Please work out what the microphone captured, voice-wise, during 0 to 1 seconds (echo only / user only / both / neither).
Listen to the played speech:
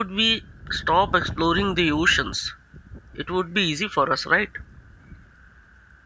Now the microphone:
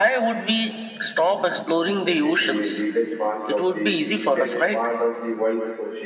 echo only